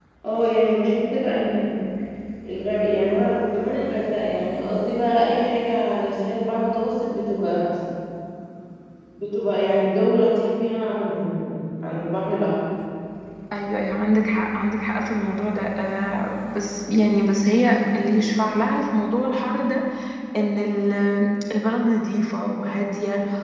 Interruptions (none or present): none